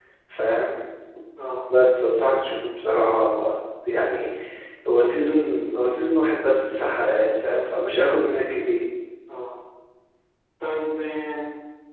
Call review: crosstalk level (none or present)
none